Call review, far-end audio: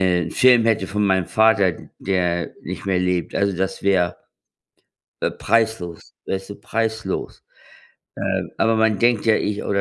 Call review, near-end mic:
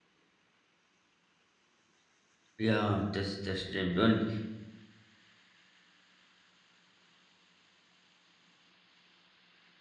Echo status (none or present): none